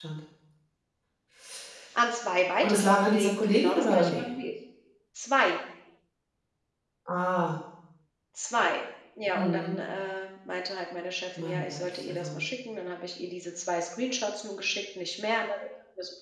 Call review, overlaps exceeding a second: present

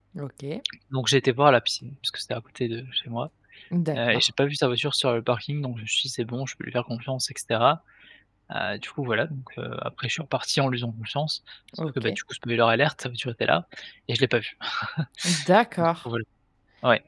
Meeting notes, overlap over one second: none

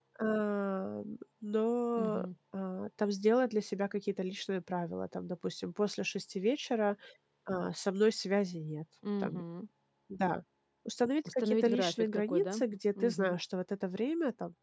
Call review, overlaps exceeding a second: present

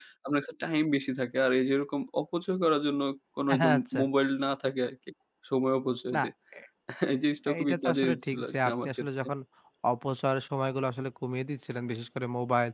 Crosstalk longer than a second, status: present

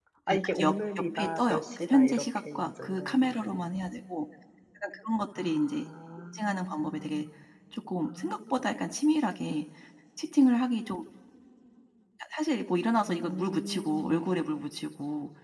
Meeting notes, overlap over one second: present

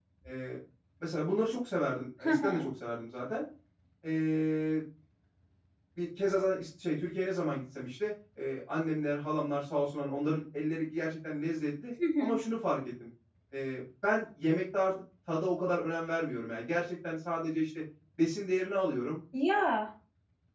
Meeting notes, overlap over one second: none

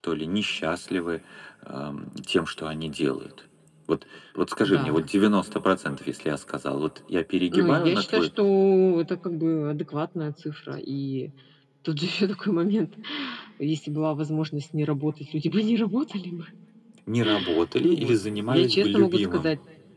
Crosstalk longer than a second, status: present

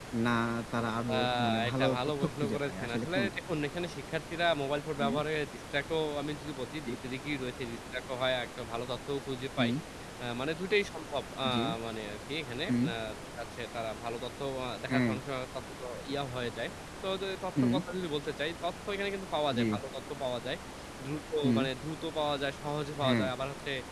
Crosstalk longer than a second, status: present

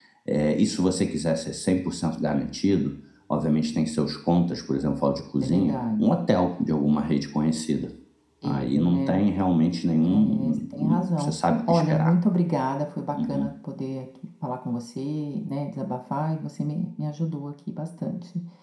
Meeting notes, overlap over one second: present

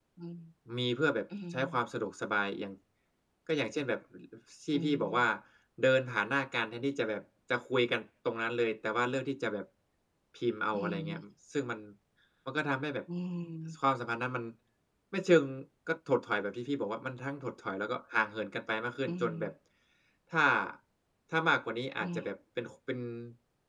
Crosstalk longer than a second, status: none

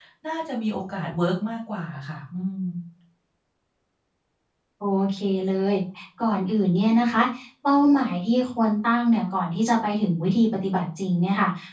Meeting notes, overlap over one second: none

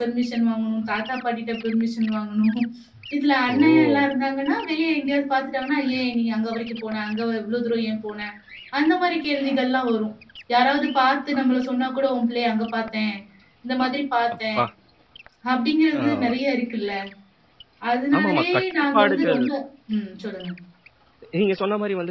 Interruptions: present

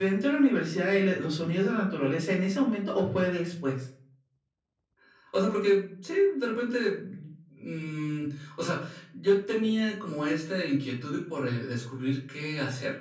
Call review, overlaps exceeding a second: none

